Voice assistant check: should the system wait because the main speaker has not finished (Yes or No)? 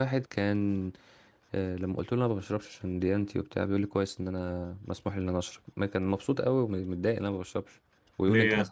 Yes